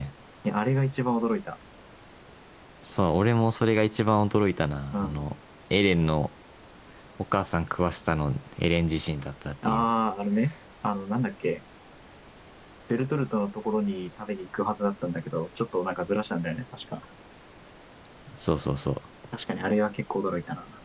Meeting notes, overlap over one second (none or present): none